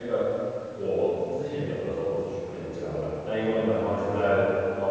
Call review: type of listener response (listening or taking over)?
listening